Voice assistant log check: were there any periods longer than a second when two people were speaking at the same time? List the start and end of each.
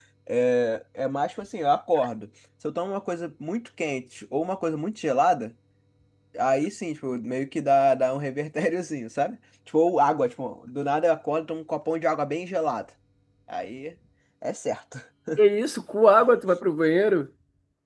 none

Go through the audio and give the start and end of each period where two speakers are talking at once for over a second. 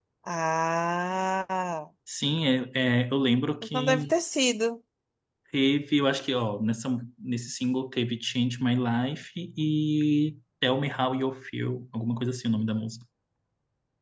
none

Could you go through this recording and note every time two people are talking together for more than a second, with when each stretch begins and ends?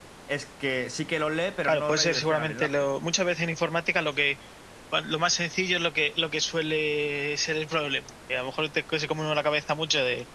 1.6-2.9

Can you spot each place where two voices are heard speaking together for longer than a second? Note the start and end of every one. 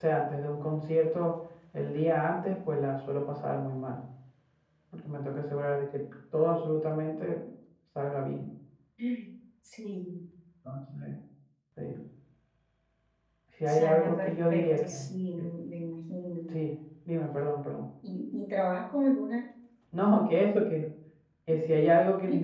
13.7-14.9

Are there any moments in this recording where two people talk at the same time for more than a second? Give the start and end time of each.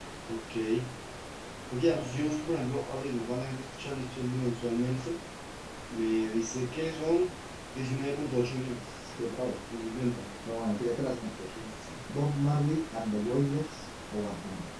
none

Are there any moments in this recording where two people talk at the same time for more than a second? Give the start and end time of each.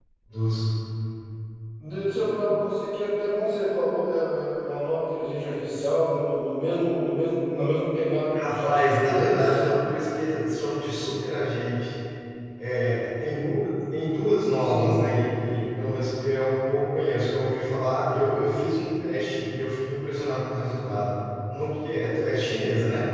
8.3-9.6

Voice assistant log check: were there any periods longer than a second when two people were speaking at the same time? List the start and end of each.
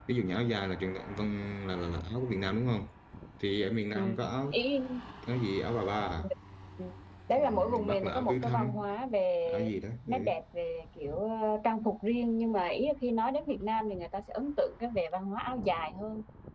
7.4-8.7

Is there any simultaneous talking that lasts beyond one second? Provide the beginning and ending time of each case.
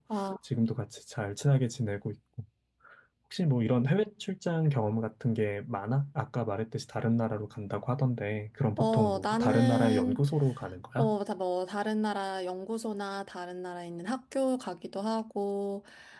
8.8-10.2

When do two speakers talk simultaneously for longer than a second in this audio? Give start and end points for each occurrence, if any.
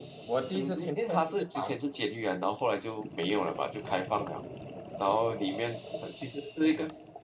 0.5-1.8

